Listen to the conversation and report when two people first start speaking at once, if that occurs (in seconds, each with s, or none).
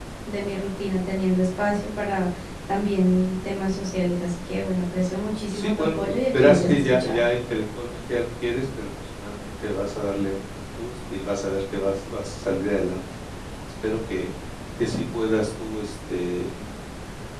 5.5 s